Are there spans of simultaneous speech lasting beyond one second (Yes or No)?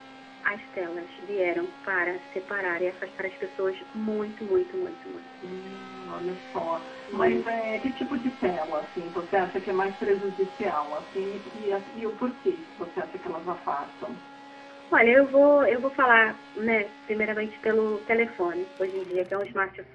No